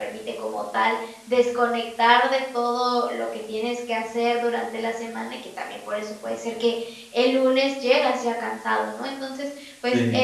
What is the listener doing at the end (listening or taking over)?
listening